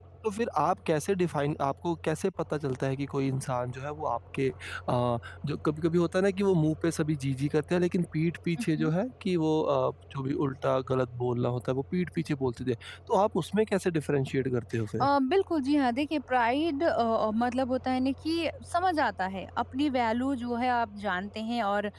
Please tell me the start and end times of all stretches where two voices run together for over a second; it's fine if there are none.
none

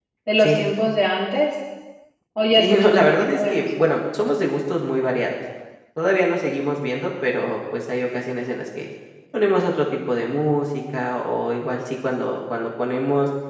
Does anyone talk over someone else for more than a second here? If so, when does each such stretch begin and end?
2.6-3.9

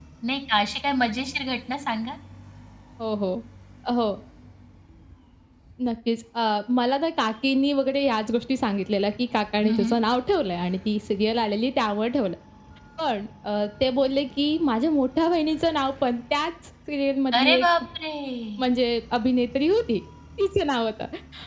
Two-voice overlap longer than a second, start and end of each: none

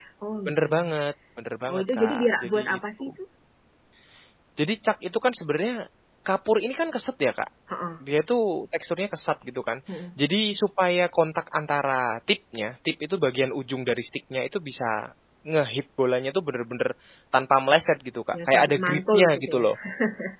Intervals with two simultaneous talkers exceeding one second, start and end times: 1.7-3.0, 18.4-19.6

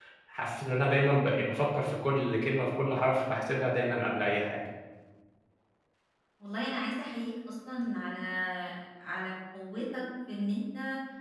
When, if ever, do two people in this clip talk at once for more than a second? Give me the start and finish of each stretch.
none

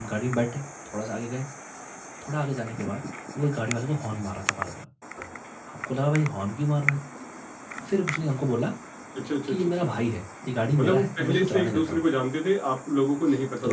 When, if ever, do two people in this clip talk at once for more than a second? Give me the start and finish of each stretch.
10.8-12.0

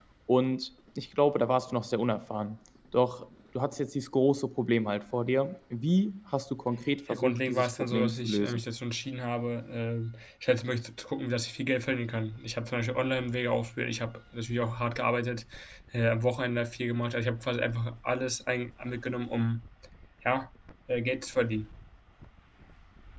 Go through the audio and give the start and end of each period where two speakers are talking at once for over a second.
7.1-8.6

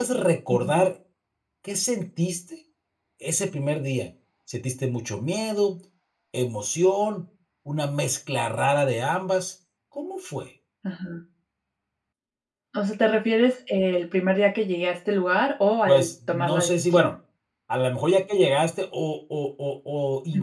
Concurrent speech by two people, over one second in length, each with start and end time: 15.9-17.1

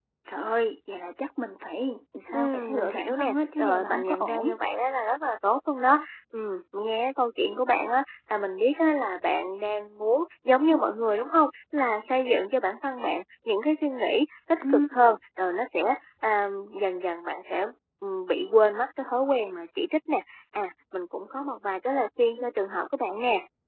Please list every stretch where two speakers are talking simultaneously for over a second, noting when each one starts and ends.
2.3-4.5

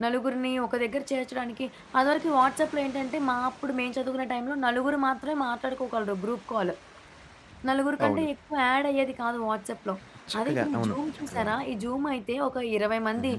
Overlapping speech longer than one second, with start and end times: 10.4-11.6

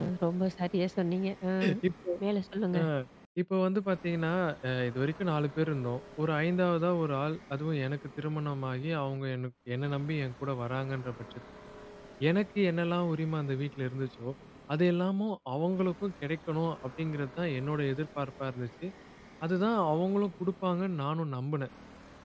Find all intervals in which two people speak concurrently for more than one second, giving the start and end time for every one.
none

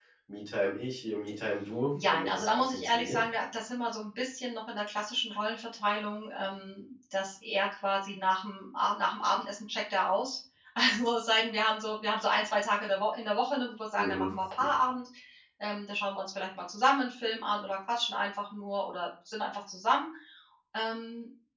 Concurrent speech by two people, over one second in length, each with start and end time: 2.0-3.2

